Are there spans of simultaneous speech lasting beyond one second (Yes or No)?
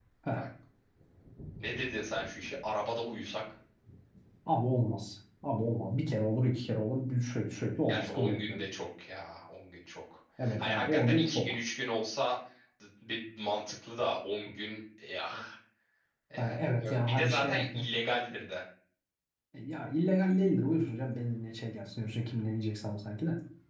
Yes